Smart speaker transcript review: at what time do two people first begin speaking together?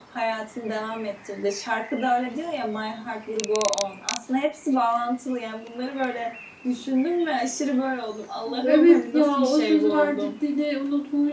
8.4 s

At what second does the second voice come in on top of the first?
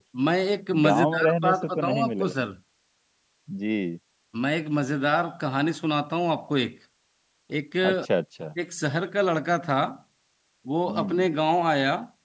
0.8 s

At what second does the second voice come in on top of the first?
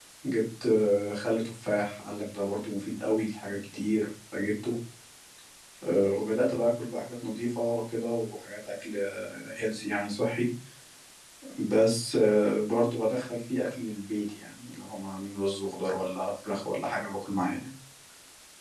none

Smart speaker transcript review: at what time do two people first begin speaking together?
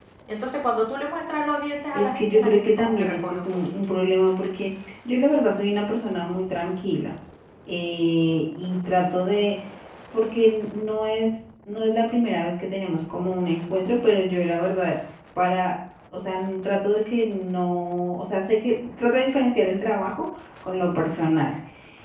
1.9 s

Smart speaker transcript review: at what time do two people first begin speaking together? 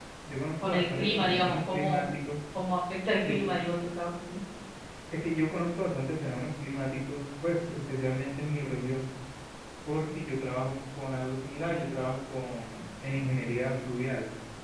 0.6 s

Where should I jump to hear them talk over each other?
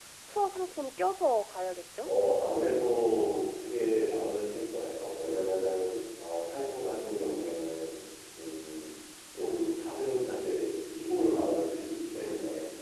none

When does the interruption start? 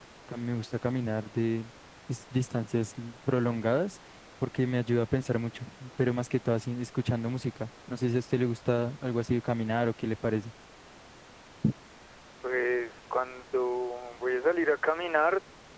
none

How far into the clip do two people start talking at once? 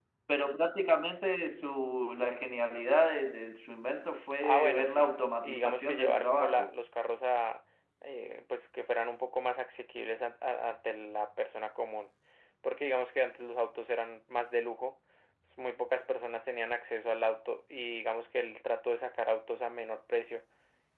4.4 s

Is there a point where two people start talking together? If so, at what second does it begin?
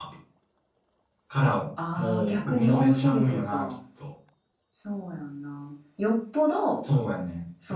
2.0 s

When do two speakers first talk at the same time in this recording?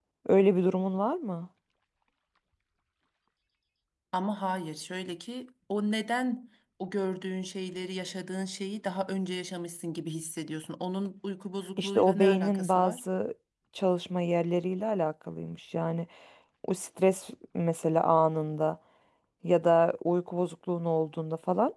11.8 s

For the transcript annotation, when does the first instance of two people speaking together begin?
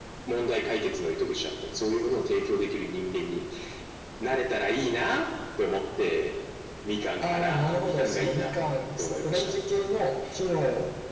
7.2 s

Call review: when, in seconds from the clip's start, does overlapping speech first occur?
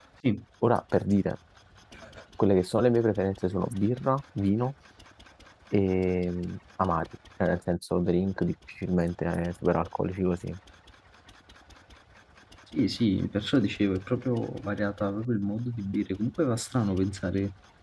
none

